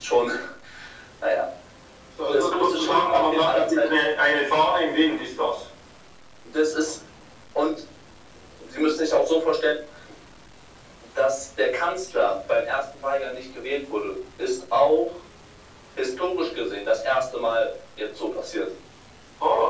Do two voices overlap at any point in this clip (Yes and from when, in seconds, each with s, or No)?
Yes, from 2.3 s